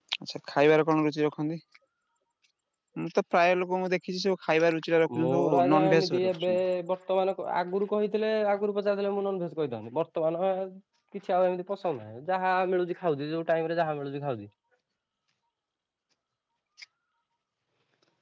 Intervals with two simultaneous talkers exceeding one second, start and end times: 5.2-6.5

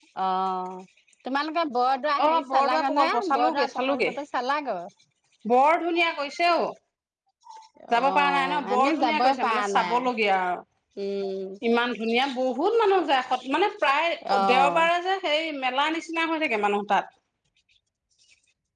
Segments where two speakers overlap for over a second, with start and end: 2.2-4.1, 8.0-10.0

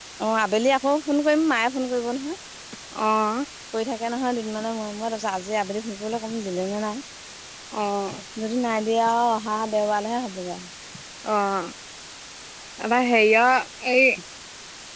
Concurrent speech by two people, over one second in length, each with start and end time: none

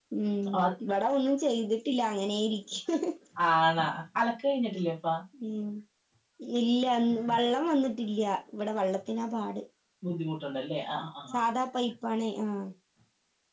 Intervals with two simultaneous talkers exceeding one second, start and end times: none

